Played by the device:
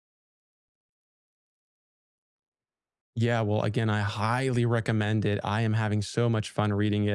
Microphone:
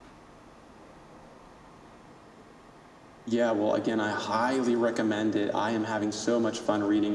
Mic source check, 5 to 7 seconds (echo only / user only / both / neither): echo only